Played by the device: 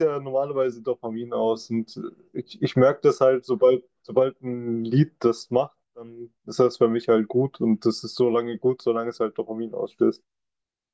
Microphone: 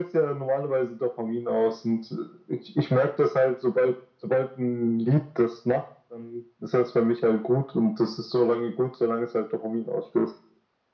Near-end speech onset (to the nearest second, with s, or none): none